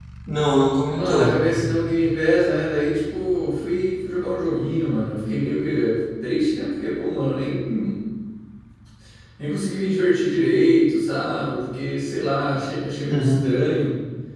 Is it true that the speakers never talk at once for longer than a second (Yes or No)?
Yes